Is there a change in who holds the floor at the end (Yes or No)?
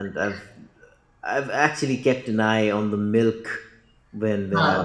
No